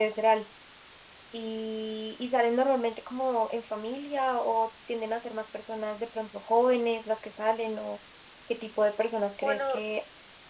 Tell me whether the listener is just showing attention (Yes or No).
Yes